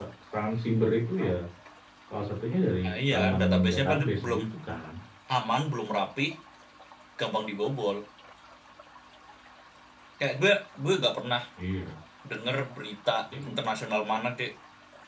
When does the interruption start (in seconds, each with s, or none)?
2.8 s